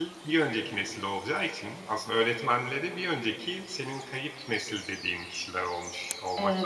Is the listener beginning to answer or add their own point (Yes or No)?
Yes